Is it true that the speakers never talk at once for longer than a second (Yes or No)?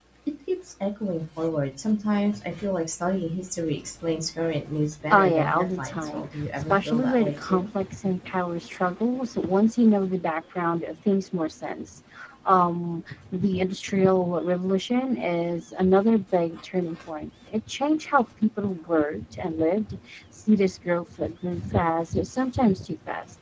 No